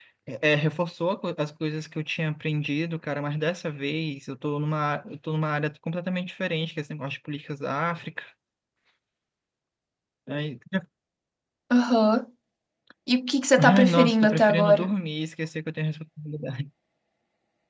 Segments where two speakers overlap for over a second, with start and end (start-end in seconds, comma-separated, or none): 13.6-14.9